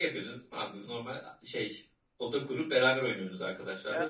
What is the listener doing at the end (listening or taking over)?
taking over